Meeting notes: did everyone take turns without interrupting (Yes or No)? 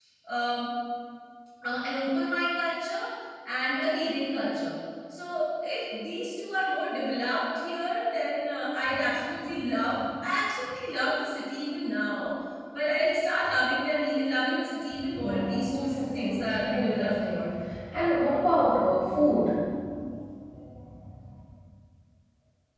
No